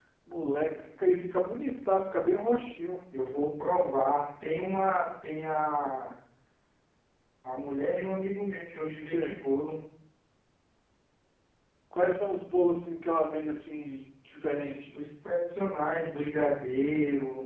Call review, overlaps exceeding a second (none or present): none